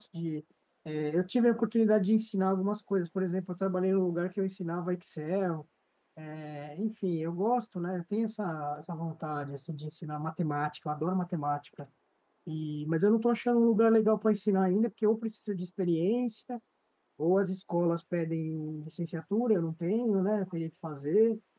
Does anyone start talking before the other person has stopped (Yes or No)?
No